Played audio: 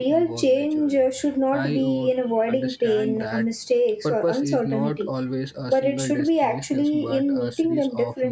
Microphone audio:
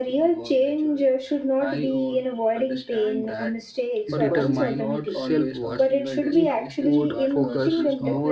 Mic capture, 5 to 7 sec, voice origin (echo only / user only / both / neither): both